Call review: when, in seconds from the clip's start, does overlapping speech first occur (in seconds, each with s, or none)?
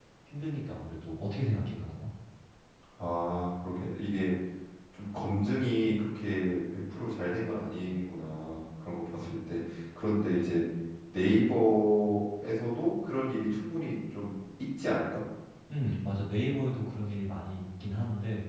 none